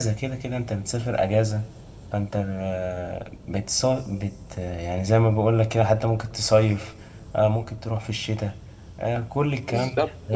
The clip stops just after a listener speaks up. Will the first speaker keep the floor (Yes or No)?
No